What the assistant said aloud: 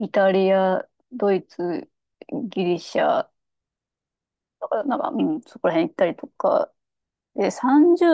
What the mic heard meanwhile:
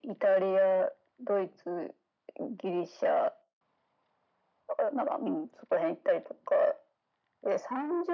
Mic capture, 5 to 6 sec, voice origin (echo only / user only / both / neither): echo only